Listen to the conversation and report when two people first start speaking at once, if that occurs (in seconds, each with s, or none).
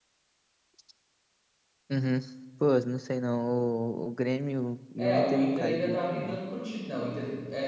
5.0 s